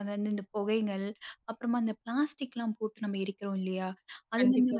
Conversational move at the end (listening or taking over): listening